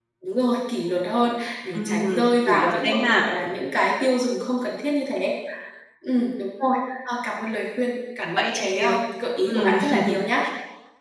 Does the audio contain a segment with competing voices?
Yes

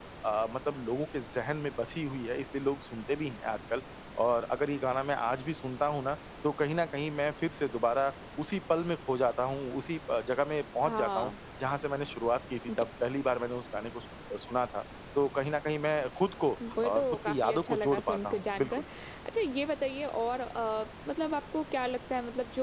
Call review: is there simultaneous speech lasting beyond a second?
Yes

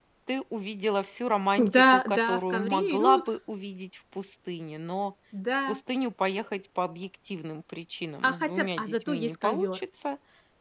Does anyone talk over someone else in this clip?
Yes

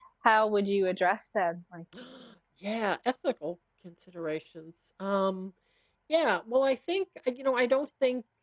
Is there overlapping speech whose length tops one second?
No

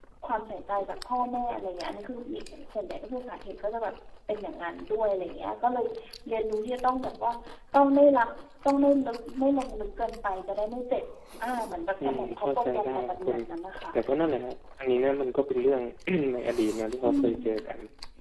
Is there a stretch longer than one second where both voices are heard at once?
Yes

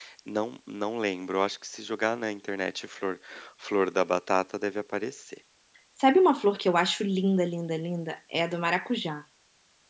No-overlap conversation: Yes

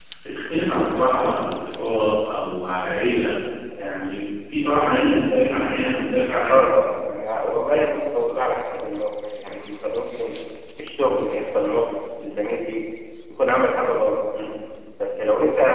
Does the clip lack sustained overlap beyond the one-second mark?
Yes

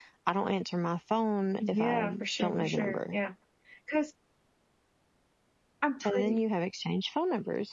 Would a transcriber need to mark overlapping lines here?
Yes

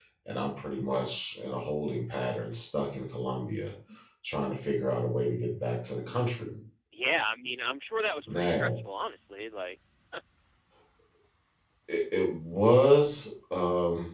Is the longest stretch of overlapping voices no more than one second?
Yes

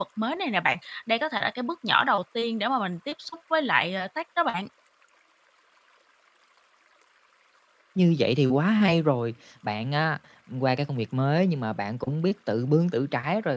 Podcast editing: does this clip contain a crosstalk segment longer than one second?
No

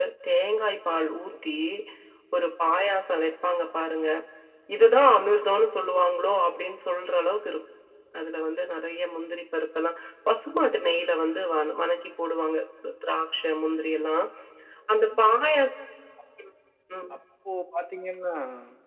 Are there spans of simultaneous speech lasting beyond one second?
No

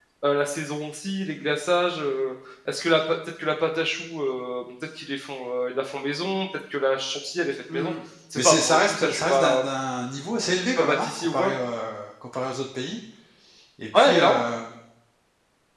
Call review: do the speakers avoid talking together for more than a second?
No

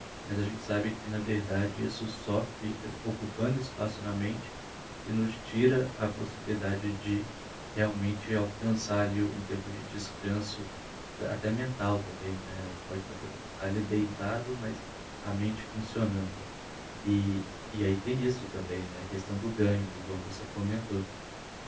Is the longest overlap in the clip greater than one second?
No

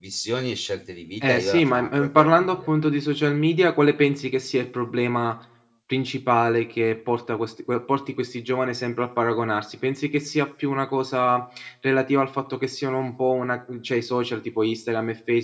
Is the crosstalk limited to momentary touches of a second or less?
No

